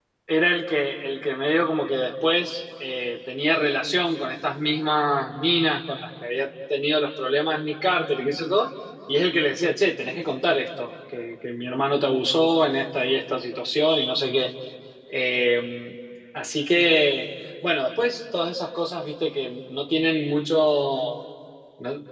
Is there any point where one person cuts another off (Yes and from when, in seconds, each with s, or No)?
No